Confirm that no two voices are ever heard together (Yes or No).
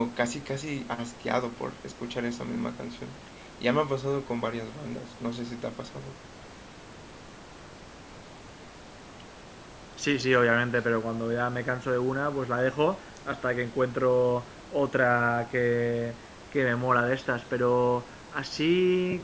Yes